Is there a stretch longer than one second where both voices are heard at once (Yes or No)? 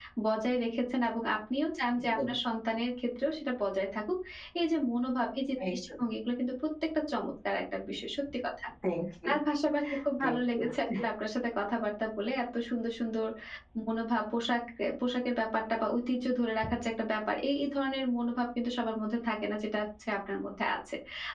No